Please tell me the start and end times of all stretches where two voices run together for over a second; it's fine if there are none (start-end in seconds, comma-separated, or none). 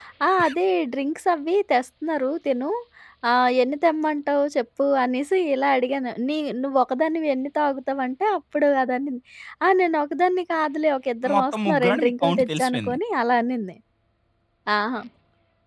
11.3-13.0